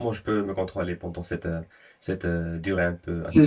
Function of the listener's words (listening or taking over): taking over